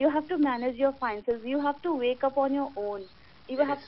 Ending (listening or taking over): listening